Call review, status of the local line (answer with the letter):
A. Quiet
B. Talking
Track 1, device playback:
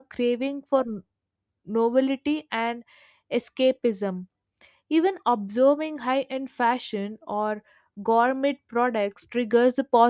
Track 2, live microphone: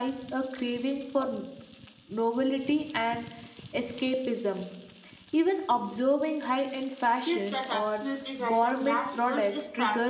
B